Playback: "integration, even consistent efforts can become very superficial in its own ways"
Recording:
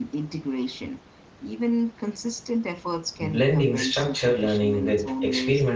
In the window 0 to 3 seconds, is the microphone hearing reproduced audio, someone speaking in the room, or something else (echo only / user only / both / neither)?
echo only